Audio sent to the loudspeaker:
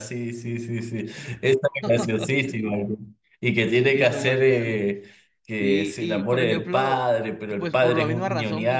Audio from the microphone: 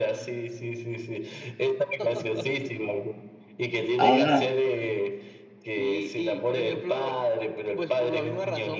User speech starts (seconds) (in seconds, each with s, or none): 4.0 s